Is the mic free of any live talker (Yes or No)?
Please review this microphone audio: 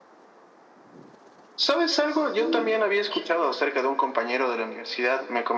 No